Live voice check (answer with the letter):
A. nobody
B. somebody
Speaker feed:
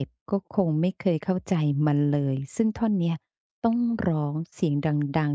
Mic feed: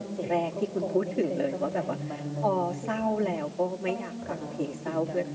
B